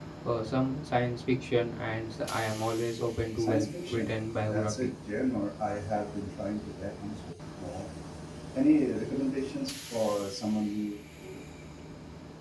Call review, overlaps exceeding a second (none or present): present